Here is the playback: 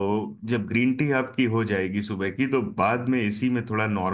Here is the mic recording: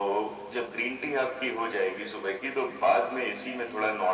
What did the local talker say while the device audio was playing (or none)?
none